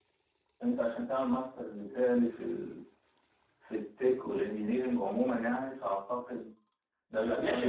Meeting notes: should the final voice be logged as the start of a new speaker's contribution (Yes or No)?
Yes